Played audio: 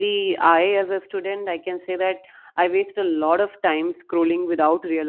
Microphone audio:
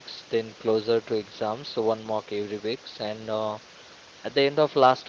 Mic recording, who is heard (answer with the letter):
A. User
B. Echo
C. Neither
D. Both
A